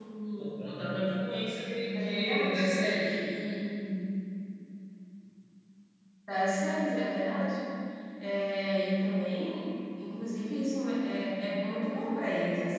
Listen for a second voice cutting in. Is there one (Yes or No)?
Yes